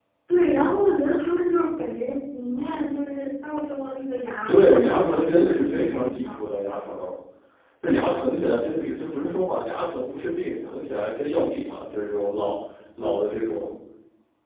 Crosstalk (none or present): present